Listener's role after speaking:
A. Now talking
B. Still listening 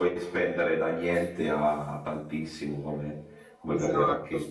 A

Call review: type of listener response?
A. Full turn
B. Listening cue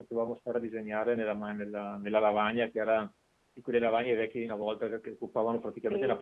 A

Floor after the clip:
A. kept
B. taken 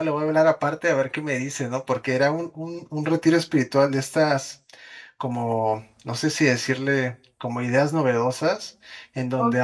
B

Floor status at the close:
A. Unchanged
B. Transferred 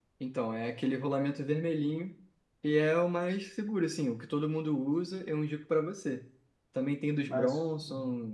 A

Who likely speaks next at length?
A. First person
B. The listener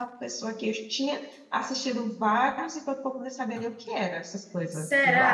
B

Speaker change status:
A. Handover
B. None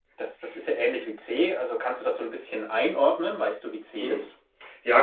A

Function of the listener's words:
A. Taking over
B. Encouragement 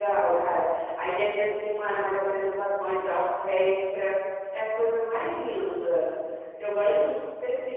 B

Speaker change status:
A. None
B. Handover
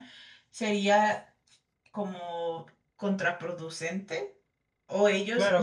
B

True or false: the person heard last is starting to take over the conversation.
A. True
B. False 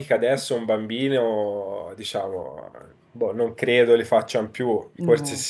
B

